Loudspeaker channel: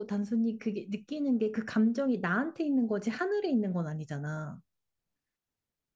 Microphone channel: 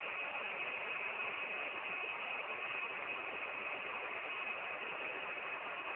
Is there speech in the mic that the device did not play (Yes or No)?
No